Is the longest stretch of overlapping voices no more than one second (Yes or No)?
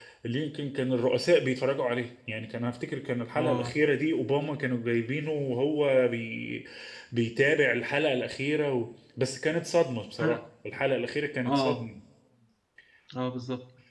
Yes